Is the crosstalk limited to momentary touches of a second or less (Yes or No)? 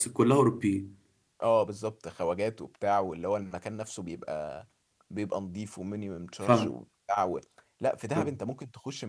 Yes